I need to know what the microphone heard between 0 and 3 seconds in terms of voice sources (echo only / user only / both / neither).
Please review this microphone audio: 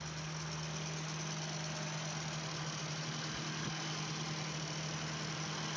neither